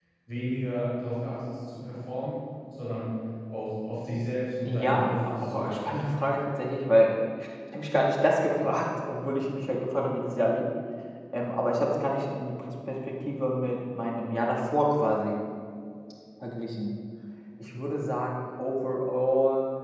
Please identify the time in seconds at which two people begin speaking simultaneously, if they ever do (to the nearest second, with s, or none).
5 s